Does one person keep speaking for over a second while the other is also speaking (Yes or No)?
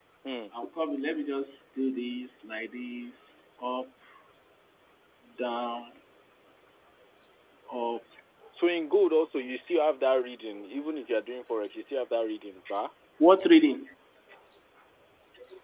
No